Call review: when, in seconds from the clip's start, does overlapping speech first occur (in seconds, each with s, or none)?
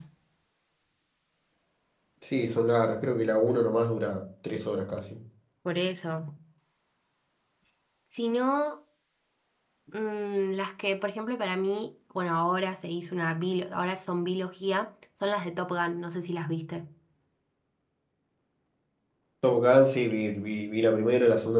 none